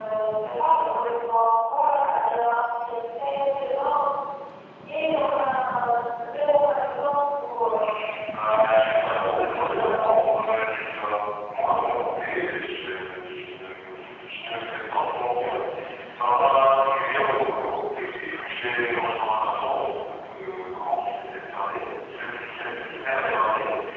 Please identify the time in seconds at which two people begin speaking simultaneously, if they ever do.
8.5 s

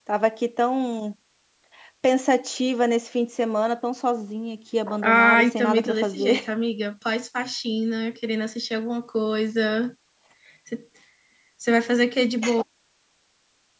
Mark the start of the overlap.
4.9 s

